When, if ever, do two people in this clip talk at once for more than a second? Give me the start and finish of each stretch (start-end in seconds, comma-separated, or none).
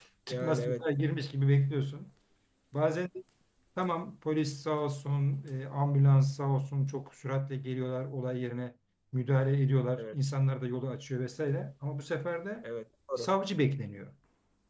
none